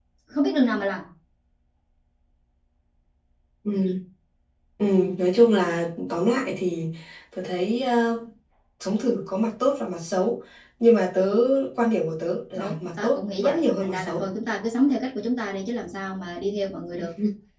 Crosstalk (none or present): present